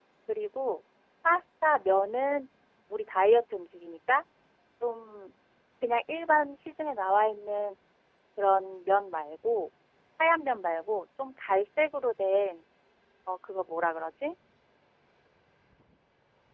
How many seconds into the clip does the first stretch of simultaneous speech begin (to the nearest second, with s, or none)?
none